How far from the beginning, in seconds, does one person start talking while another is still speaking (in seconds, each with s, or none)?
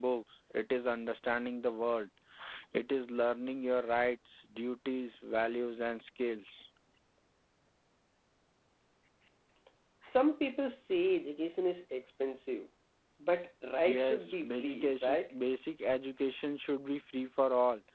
13.8 s